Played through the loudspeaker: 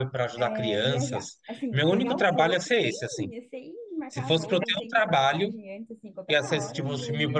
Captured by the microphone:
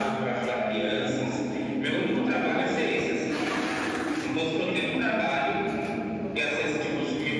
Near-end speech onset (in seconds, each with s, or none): 4.9 s